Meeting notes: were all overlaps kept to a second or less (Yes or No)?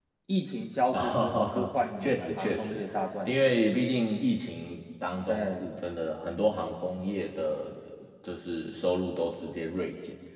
No